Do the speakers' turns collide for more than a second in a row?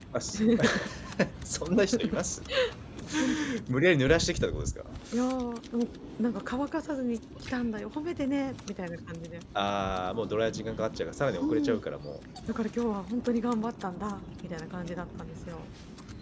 No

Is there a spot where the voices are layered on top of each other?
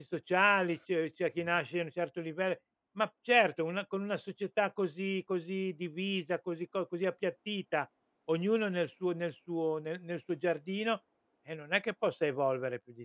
No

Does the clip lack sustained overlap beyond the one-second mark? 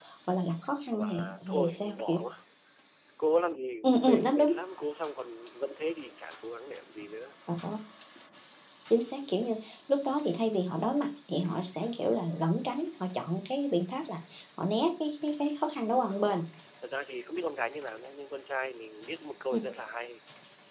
No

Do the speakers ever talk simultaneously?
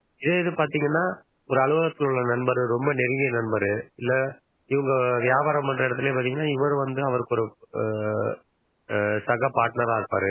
No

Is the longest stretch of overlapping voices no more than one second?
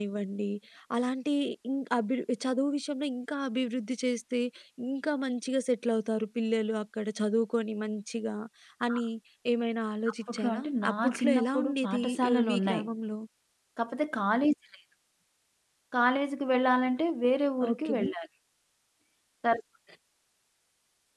No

